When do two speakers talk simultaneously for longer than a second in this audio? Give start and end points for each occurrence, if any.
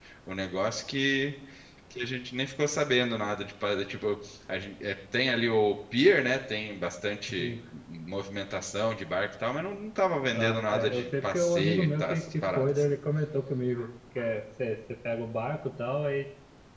10.3-12.9

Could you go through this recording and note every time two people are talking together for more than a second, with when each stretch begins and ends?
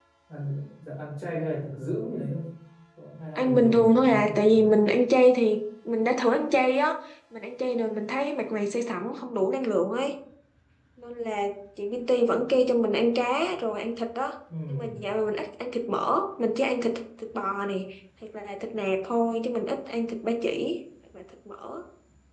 3.4-4.7

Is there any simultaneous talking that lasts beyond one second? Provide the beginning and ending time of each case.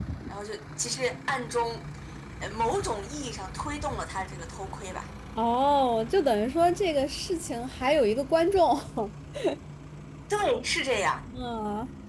none

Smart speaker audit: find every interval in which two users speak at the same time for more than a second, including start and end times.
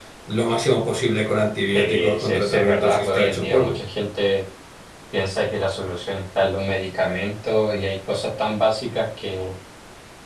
1.7-3.8

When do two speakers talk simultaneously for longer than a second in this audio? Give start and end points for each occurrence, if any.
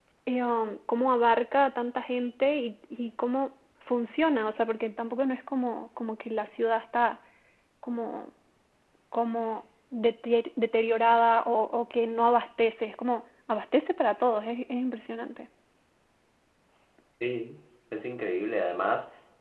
none

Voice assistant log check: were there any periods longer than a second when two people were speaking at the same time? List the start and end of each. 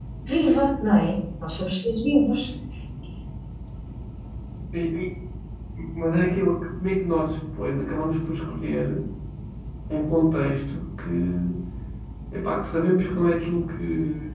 none

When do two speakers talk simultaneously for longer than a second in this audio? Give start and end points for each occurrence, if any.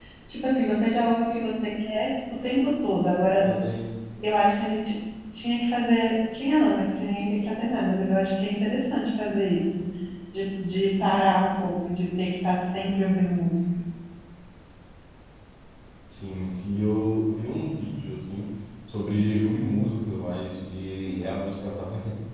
none

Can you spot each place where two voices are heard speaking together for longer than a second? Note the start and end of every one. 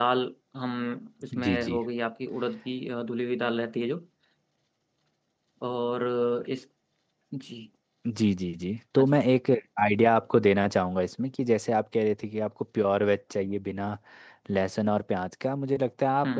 none

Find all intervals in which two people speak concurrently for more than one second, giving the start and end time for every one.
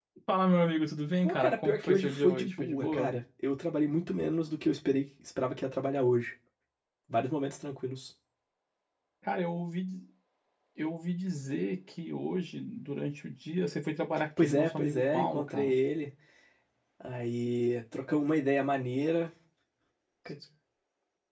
1.2-3.1, 14.4-15.8

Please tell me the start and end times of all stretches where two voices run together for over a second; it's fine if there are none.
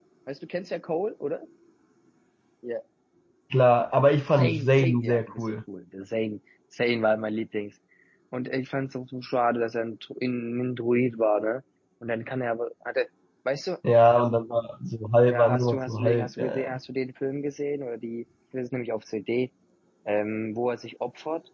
4.3-5.6, 15.3-16.8

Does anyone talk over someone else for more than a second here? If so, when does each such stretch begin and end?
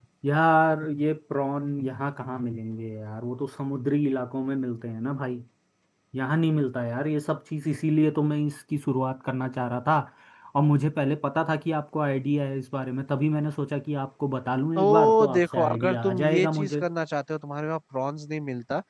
14.8-16.8

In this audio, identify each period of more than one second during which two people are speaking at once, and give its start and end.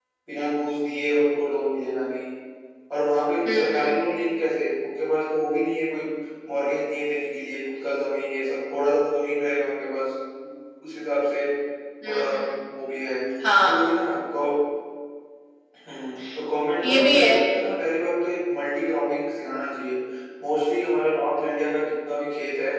none

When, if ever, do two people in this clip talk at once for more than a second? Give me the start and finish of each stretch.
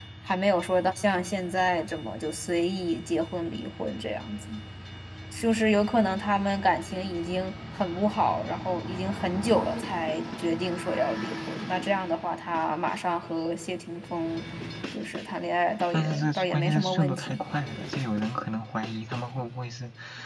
15.9-17.4

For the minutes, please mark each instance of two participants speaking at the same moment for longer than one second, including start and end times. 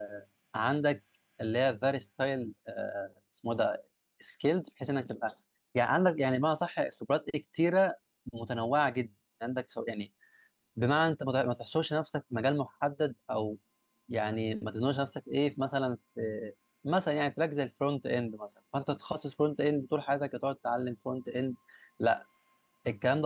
none

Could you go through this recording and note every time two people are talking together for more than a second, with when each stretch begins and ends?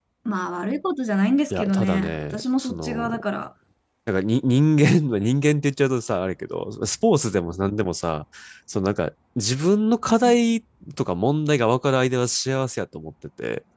1.5-3.2

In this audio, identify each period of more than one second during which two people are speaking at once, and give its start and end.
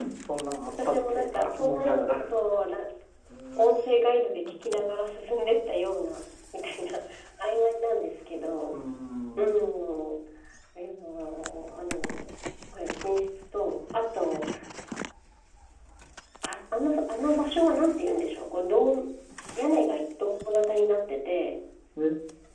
0.7-2.2

